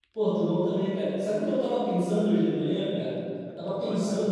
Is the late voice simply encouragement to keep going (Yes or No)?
Yes